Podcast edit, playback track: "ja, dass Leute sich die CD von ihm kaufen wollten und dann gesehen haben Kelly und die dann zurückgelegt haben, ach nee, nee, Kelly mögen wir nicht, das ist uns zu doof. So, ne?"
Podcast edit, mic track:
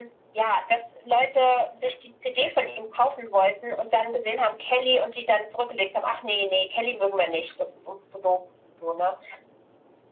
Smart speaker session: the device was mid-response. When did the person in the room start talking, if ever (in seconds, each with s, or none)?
none